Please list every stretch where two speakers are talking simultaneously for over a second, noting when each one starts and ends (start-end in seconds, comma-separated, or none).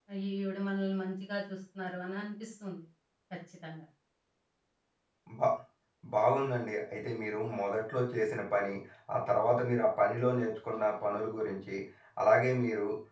none